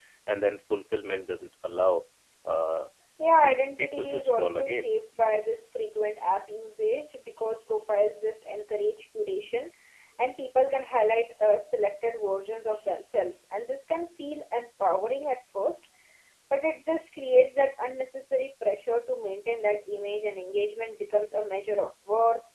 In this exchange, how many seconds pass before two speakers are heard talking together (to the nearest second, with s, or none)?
3 s